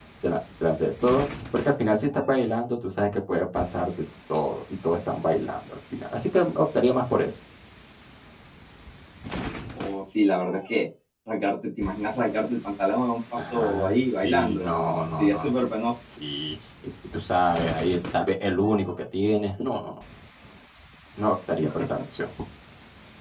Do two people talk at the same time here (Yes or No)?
Yes